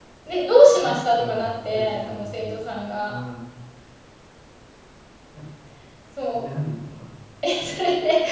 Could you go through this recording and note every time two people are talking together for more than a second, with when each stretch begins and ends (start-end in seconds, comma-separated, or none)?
0.8-2.6